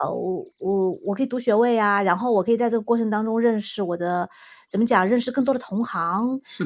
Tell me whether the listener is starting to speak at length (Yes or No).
No